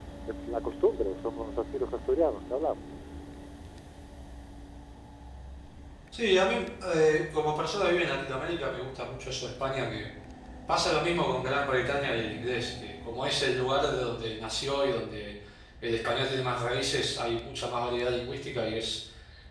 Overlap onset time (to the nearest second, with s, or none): none